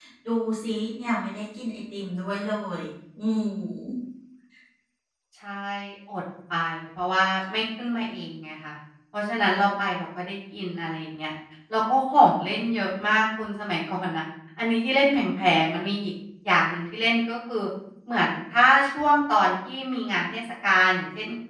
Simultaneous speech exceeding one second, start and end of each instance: none

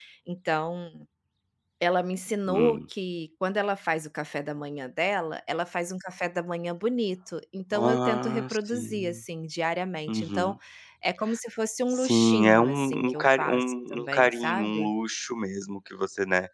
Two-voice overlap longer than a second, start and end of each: 7.7-9.2, 11.9-14.9

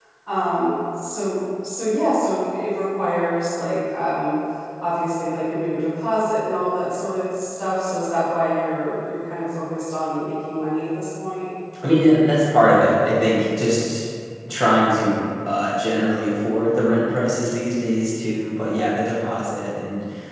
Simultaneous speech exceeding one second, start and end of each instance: none

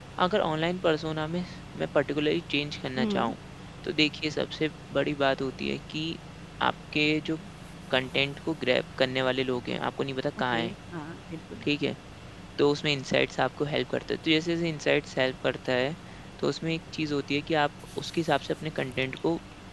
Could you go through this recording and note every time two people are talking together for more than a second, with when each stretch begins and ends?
none

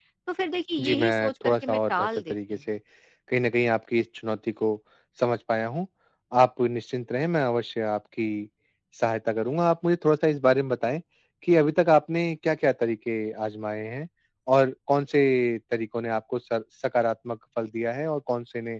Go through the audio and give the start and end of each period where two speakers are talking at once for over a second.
0.8-2.6

